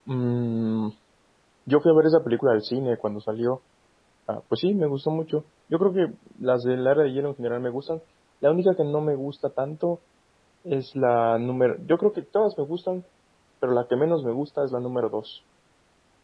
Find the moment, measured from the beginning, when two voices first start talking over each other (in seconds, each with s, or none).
none